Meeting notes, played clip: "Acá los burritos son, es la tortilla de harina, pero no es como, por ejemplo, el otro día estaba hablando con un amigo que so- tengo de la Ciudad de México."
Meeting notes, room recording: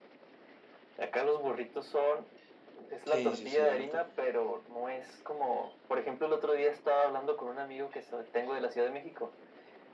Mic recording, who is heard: both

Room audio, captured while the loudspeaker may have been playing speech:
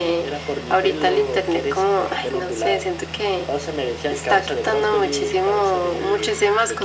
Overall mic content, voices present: echo only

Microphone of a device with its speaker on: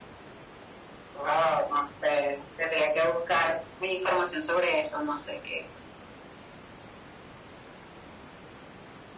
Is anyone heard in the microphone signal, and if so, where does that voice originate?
echo only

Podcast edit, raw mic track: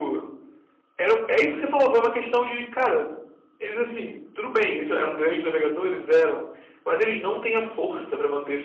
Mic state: echo only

